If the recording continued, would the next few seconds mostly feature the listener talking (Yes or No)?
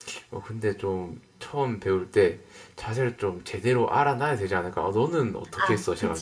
Yes